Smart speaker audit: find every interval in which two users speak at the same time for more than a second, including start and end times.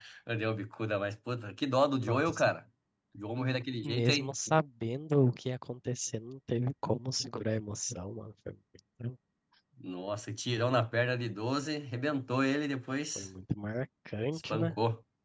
none

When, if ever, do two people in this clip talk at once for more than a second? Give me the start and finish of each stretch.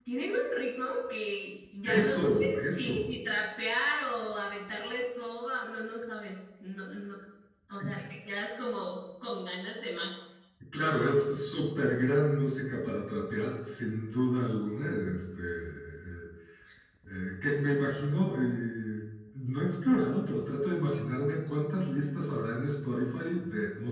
1.9-3.1

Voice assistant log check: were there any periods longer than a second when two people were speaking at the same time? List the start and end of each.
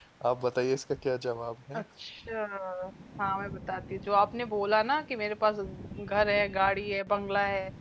none

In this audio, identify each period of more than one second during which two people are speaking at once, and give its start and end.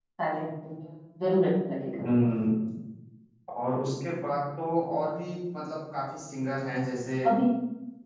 none

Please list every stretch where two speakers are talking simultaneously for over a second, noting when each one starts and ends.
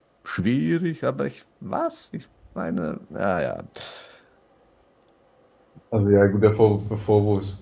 none

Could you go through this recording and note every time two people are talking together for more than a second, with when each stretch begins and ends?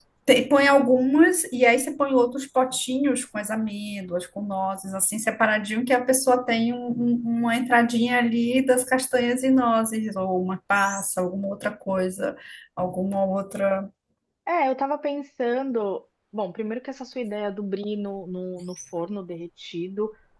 none

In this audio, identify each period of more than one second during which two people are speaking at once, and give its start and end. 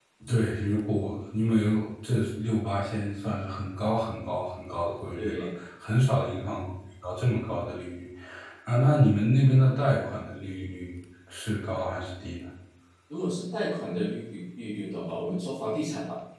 none

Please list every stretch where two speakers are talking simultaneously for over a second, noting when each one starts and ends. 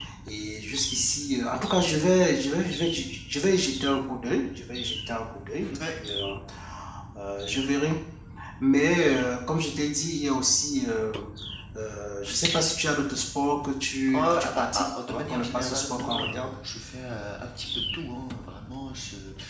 14.1-16.5

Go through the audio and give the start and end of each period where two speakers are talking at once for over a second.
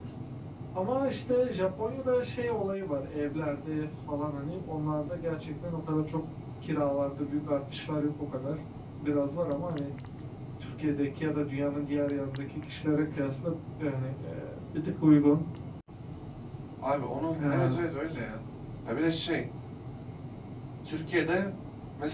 none

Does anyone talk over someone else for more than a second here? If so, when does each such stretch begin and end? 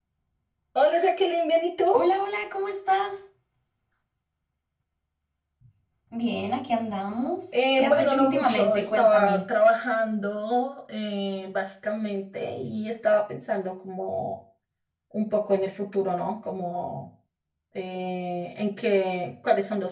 7.5-9.4

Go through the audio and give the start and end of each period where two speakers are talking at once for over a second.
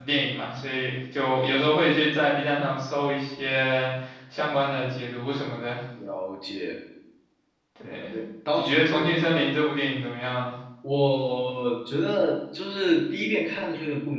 none

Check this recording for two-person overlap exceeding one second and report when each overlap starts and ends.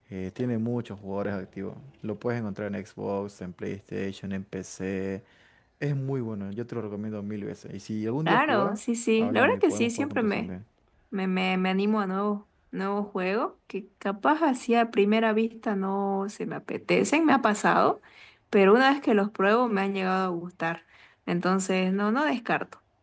9.2-10.5

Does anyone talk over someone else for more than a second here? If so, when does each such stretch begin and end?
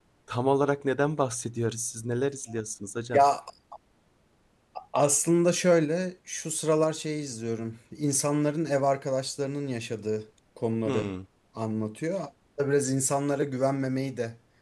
none

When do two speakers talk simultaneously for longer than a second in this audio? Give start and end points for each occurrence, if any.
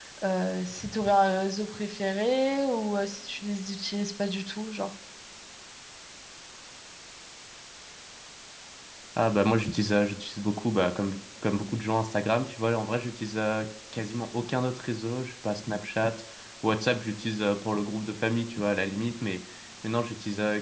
none

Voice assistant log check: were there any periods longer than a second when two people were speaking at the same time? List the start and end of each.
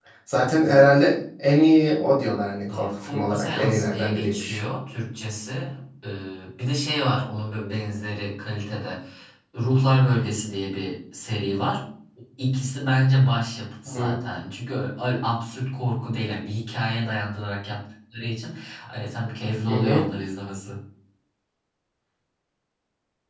2.7-4.6

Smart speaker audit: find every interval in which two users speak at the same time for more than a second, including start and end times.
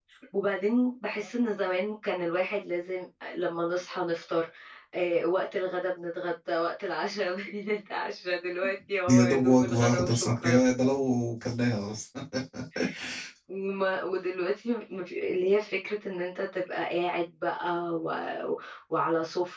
9.1-10.6

